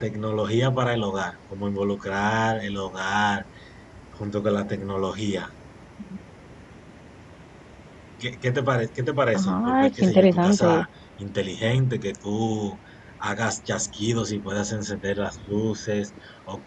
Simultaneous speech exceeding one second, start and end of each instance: 9.3-10.8

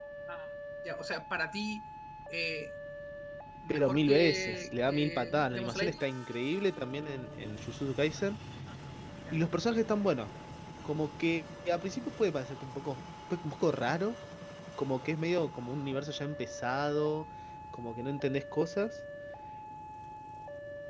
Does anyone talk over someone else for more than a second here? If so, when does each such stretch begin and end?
3.7-6.0

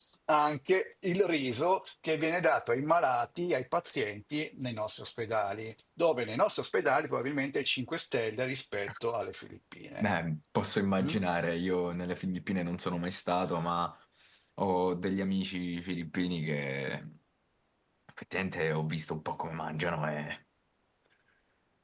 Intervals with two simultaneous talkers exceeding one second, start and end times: none

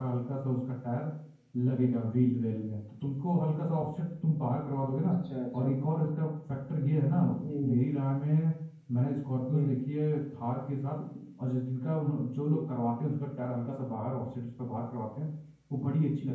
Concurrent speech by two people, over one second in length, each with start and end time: none

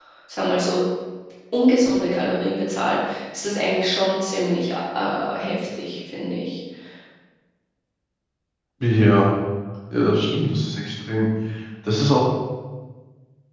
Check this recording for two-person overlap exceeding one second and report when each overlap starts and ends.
none

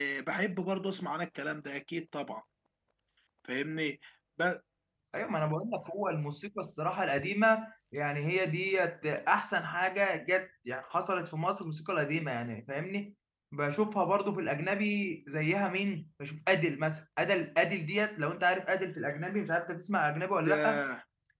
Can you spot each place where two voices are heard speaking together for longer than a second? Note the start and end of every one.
none

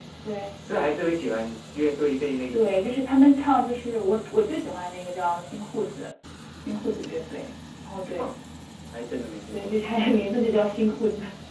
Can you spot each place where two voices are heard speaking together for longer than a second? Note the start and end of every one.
none

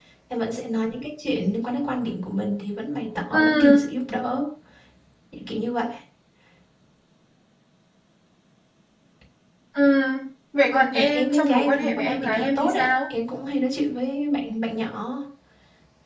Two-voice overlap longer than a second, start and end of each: 10.9-12.9

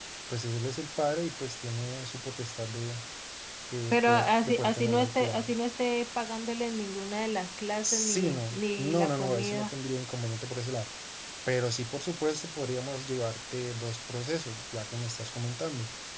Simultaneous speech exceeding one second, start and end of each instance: 3.9-5.5, 7.8-9.7

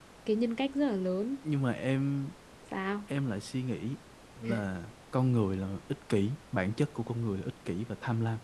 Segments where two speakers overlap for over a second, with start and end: none

